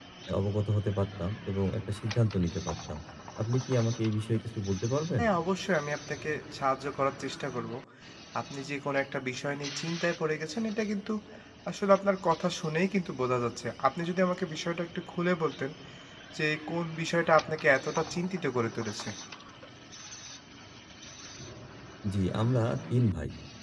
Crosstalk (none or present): none